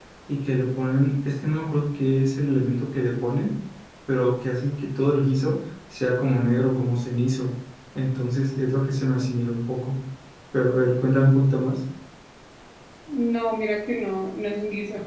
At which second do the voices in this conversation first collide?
none

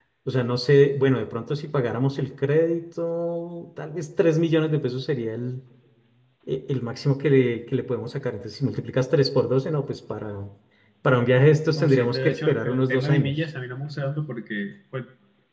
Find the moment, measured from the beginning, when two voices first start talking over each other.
11.8 s

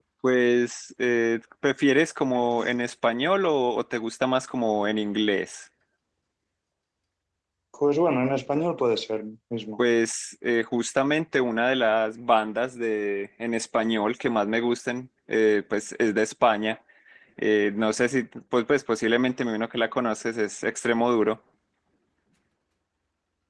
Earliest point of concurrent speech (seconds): none

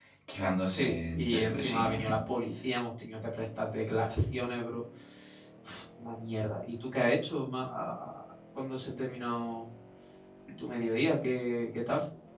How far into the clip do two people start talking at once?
0.7 s

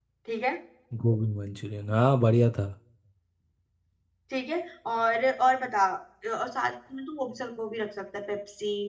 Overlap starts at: none

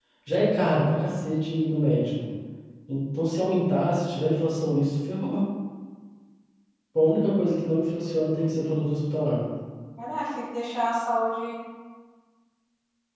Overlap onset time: none

